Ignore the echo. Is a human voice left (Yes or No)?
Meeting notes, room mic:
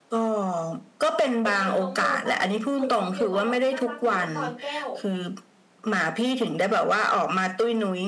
Yes